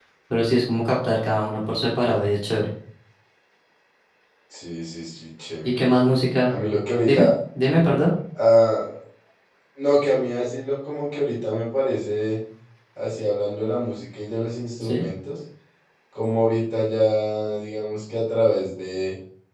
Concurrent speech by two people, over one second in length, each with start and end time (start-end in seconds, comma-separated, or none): none